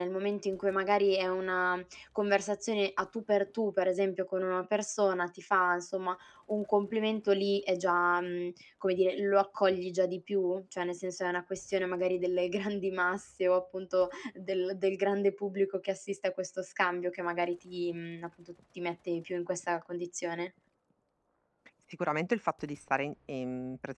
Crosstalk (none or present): none